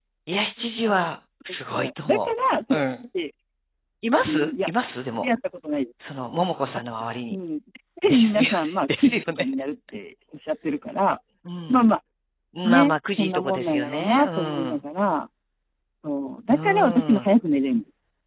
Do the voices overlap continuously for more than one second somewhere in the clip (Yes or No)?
Yes